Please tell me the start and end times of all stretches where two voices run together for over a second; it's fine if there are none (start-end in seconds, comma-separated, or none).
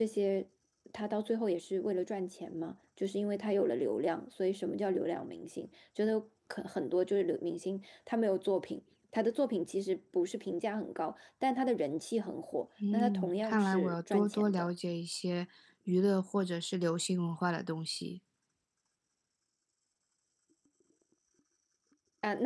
12.9-14.7